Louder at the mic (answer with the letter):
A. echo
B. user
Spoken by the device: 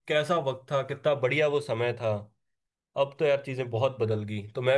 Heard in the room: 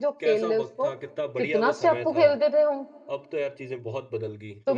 B